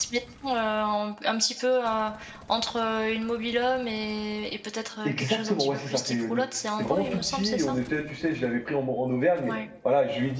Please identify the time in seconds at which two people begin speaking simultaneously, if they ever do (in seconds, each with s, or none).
5.0 s